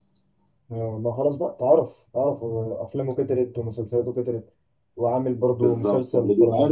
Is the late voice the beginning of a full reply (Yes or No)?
Yes